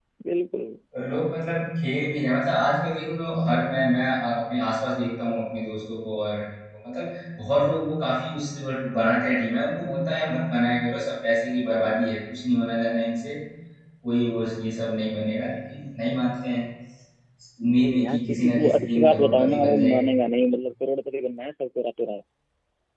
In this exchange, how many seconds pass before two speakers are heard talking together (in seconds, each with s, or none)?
17.8 s